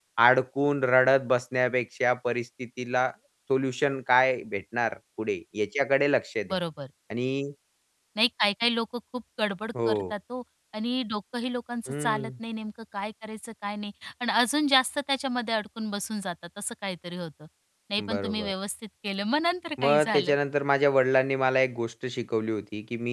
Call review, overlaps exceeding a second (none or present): none